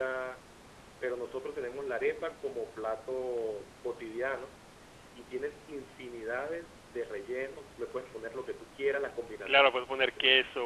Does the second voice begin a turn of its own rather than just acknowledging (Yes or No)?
Yes